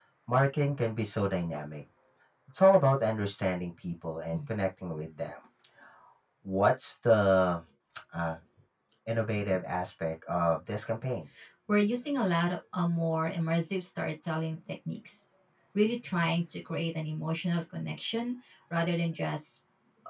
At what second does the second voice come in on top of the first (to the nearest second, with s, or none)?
none